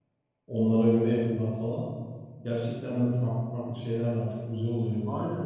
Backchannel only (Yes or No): No